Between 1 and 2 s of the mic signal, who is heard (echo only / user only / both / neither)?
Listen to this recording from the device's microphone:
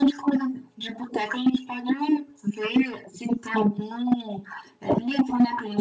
echo only